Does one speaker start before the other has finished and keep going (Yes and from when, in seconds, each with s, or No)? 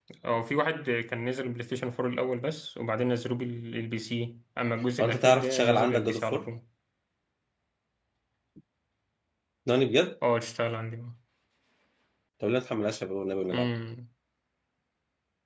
Yes, from 5.0 s